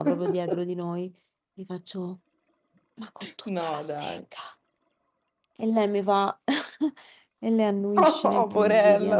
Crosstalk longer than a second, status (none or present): present